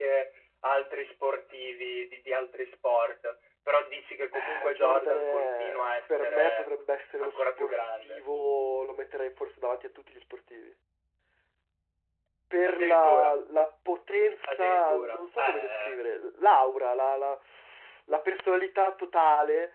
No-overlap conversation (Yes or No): No